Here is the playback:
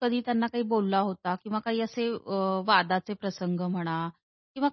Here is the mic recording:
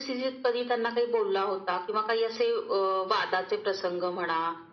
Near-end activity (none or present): none